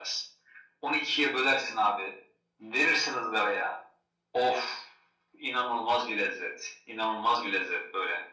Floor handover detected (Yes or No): No